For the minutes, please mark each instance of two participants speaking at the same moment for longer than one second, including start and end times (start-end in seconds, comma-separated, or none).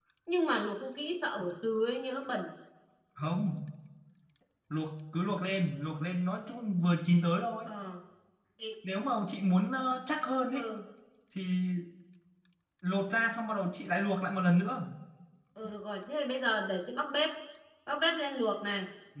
none